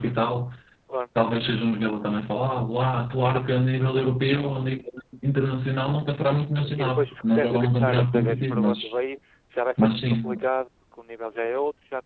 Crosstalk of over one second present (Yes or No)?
Yes